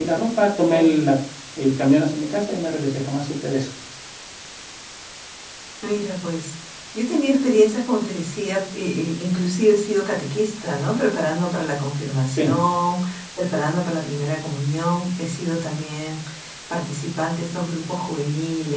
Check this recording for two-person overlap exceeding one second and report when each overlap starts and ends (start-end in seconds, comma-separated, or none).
none